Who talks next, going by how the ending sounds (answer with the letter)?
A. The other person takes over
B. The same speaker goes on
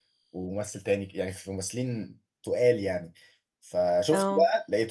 B